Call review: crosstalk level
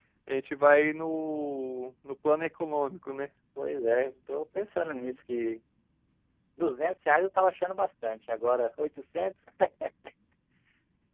none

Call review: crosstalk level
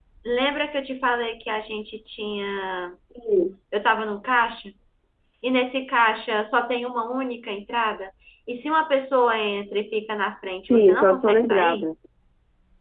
present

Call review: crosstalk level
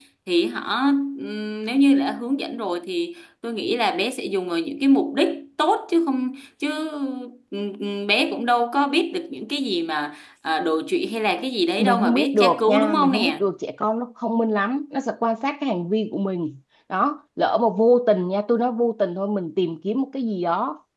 present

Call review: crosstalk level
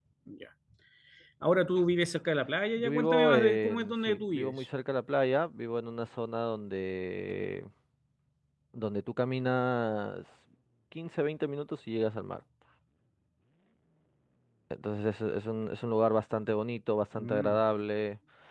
present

